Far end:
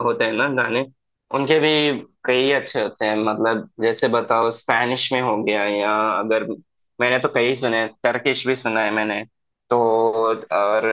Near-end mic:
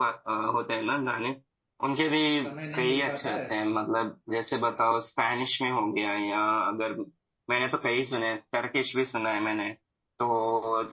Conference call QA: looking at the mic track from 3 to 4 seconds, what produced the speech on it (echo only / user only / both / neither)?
both